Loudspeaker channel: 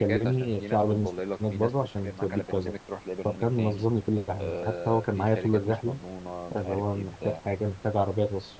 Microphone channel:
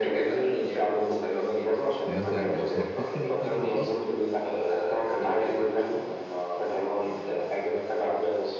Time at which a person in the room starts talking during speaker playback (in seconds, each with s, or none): 2.0 s